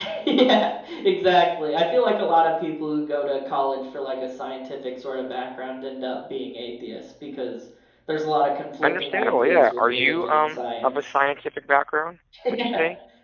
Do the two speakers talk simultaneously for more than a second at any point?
Yes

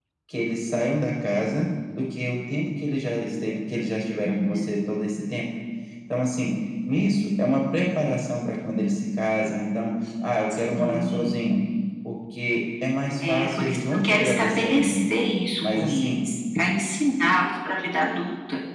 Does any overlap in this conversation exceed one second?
Yes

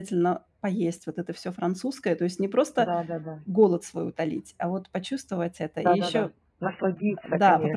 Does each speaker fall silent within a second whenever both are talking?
Yes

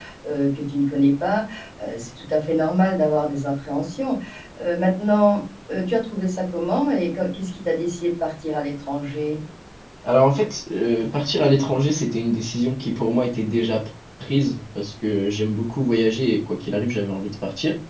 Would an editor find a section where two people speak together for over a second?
No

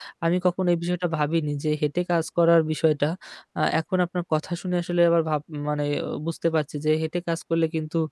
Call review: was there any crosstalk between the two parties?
No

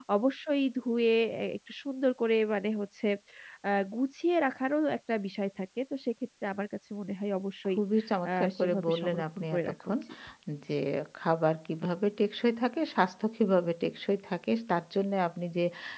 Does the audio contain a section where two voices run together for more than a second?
Yes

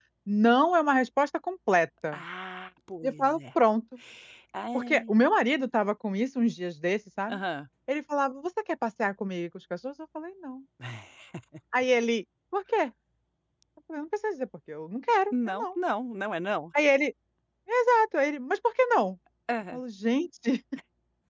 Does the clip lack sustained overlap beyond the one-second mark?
Yes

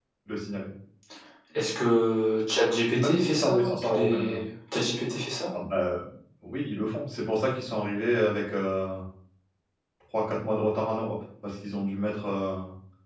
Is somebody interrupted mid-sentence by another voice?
Yes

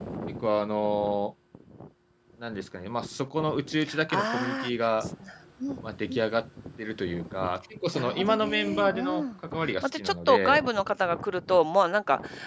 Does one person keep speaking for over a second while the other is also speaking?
Yes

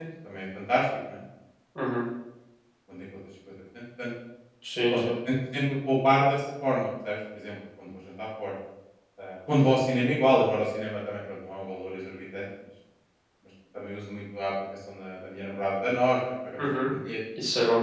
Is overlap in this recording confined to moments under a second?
Yes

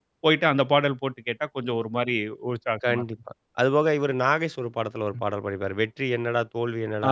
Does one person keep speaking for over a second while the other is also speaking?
No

